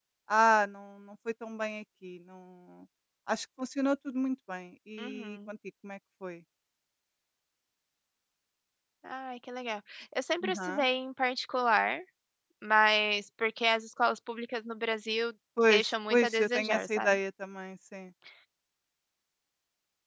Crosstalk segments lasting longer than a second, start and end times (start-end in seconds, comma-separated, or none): 15.7-17.1